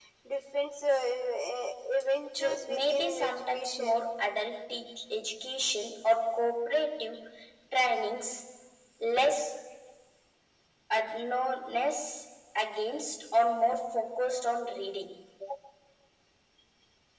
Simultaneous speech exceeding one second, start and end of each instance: 2.3-4.0

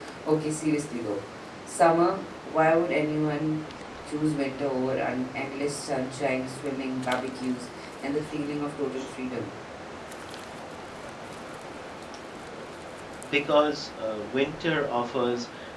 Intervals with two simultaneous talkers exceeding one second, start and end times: none

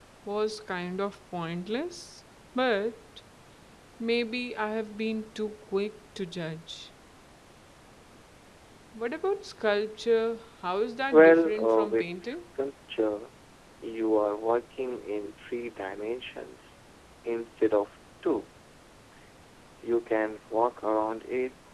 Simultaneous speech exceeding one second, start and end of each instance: 11.1-12.4

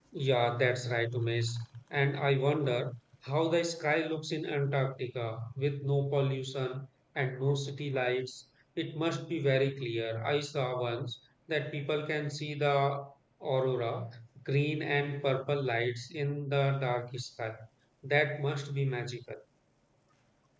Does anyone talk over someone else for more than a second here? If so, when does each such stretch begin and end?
none

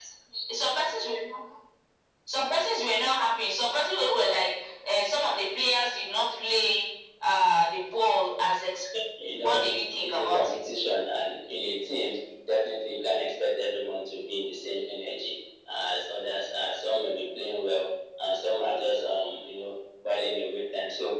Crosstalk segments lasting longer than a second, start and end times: 9.2-10.6

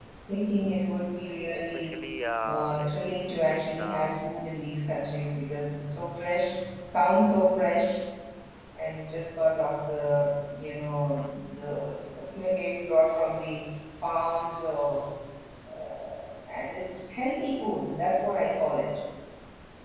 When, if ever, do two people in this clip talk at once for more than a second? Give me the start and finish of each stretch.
2.5-4.2

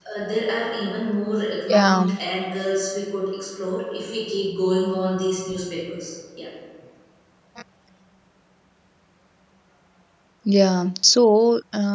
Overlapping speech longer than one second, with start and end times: none

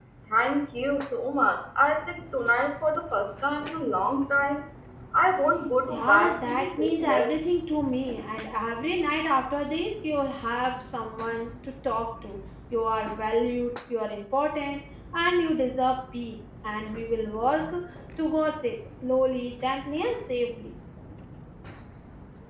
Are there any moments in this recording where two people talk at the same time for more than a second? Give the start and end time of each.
5.9-7.4

